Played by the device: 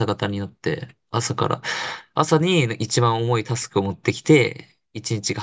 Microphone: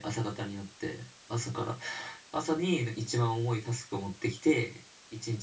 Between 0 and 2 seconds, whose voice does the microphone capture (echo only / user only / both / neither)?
echo only